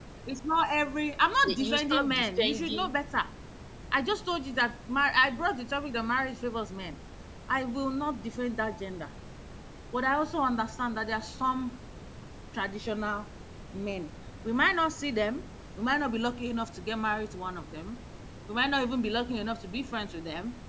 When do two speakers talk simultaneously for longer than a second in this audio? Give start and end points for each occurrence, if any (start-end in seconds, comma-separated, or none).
1.4-2.9